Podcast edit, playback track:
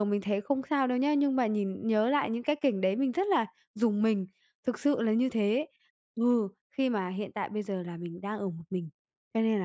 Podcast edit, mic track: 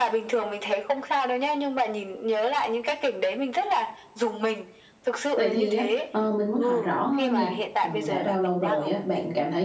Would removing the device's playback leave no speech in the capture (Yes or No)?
No